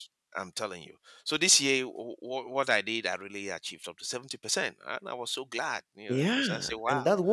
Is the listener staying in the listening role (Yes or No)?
No